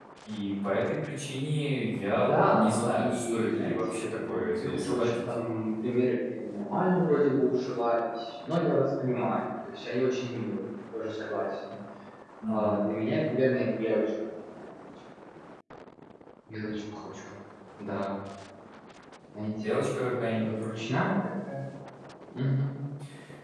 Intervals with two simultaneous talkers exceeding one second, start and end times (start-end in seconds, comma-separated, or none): 2.3-5.1